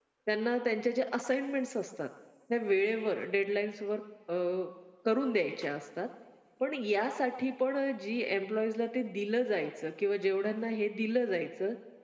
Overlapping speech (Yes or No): No